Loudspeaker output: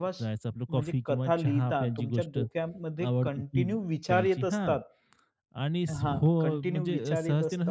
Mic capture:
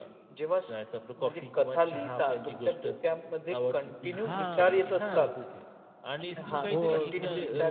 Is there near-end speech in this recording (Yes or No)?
Yes